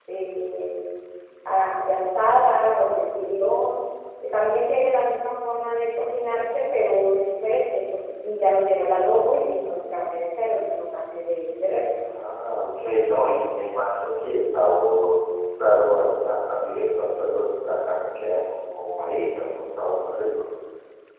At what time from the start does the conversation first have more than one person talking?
none

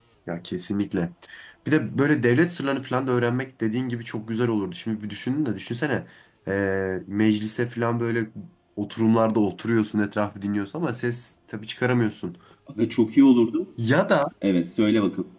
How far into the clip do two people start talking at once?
none

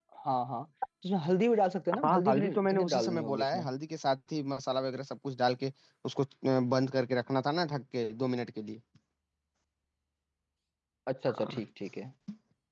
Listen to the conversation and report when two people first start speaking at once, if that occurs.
2.0 s

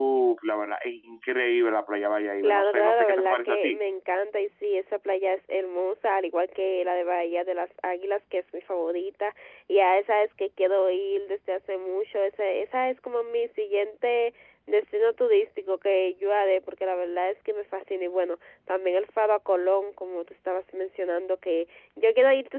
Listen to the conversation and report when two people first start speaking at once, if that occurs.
2.4 s

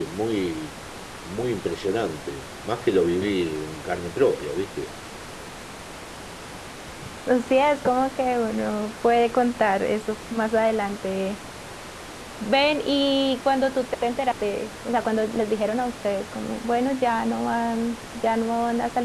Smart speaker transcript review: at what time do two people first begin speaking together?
none

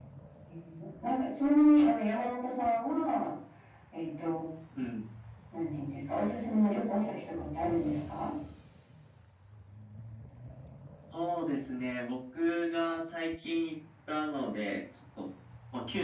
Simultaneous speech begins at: none

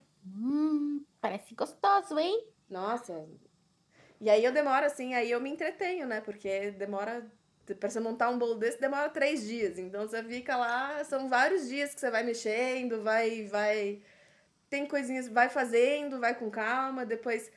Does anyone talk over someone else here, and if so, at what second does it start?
none

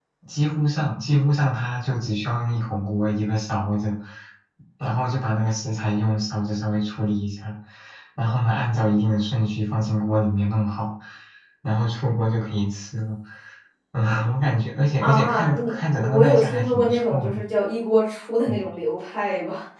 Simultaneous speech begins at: 15.0 s

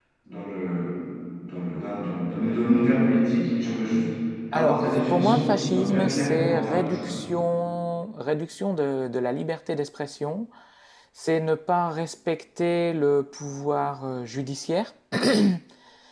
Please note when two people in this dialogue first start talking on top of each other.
4.5 s

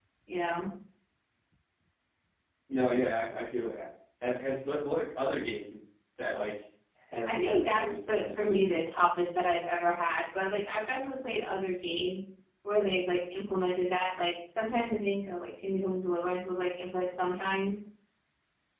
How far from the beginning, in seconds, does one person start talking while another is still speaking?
7.2 s

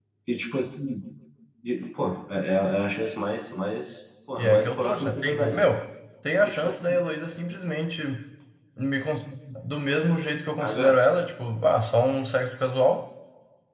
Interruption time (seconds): 4.4 s

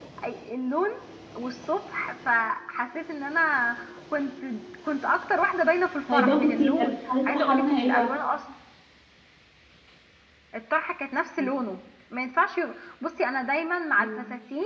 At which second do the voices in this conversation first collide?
6.1 s

